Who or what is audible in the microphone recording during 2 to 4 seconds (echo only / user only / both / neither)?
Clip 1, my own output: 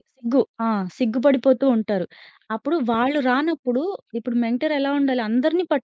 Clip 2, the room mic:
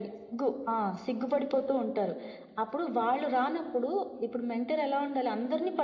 echo only